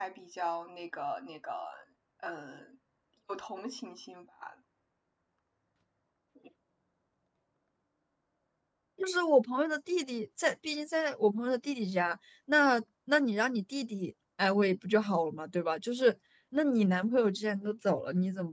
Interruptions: none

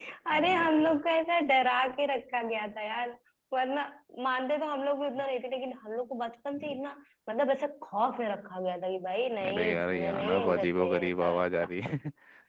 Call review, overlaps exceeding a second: present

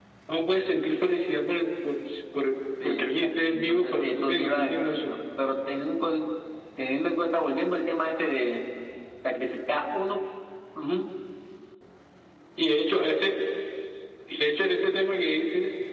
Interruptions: present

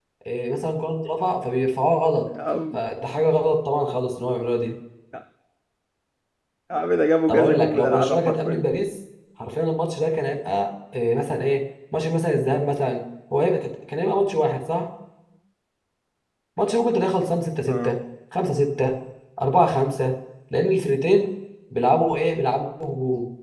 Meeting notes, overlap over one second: present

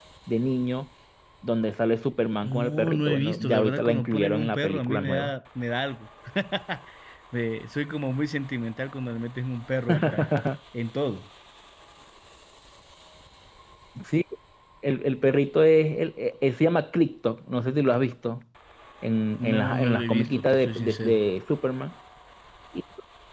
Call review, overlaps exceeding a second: present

